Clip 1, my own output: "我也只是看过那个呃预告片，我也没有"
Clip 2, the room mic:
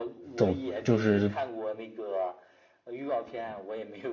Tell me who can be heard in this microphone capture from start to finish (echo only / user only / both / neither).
both